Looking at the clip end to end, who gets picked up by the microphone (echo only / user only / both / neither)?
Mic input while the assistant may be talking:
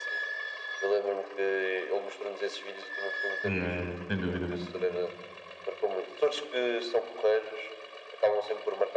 both